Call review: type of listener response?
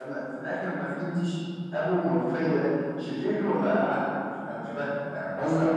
taking over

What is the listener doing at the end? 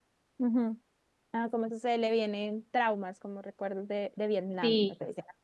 taking over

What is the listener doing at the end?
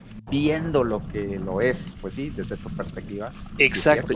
taking over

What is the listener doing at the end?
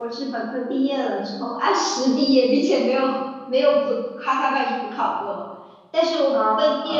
listening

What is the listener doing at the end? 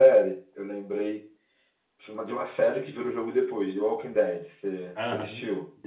taking over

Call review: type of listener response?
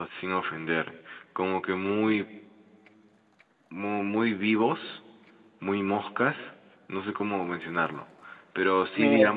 listening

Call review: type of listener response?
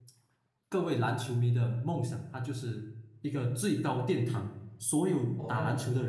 listening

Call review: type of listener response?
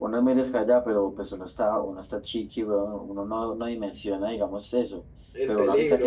listening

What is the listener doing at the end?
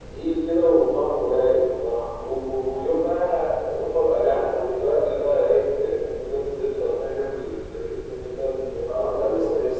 taking over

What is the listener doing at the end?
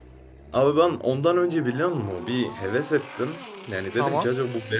listening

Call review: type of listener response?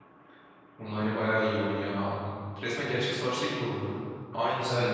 taking over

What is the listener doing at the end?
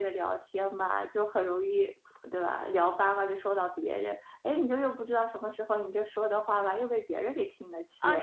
taking over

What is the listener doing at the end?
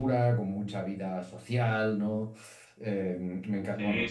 listening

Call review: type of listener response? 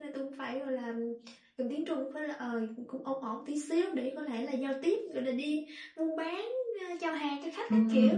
taking over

